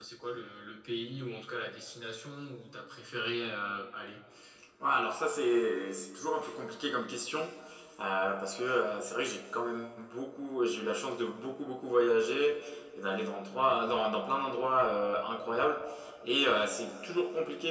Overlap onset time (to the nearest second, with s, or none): none